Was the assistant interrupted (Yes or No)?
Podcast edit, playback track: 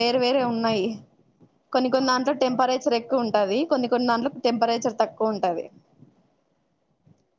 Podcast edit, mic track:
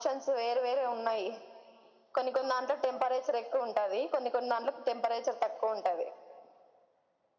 No